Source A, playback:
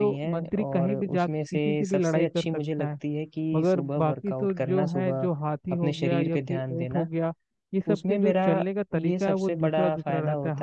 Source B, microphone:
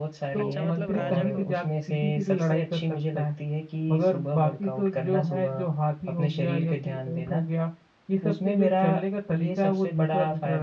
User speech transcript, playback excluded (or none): अच्छा मतलब राजा को